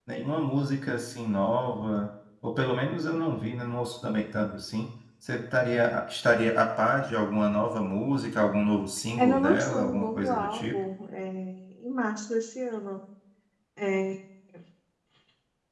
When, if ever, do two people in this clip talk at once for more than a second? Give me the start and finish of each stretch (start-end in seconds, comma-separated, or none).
9.2-10.8